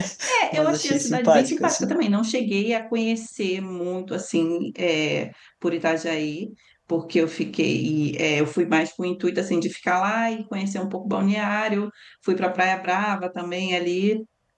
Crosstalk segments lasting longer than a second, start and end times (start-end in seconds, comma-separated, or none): 0.5-2.0